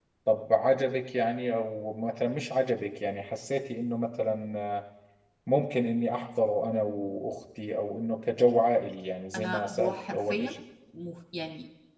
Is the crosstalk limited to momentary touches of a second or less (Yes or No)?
No